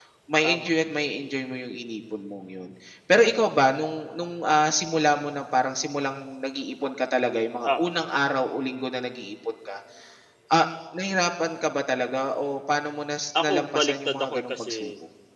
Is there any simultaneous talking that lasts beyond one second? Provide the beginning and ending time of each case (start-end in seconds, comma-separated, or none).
13.4-14.7